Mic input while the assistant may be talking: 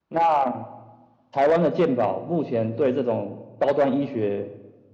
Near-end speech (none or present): none